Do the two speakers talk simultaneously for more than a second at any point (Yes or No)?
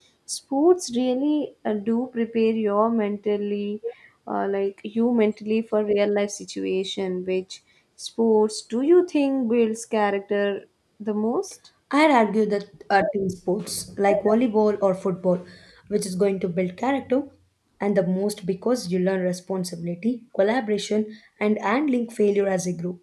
No